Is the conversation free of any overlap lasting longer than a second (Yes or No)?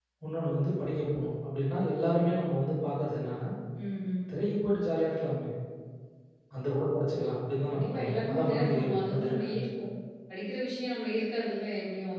No